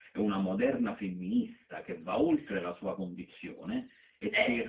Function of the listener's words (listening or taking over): listening